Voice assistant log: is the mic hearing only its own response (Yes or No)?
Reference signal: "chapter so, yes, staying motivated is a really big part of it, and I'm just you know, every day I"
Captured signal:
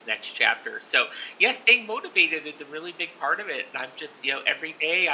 Yes